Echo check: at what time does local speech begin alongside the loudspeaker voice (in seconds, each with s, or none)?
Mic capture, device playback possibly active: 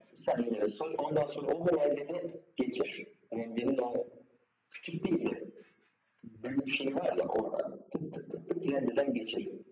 none